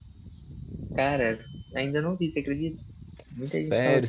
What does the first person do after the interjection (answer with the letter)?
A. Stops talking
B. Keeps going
A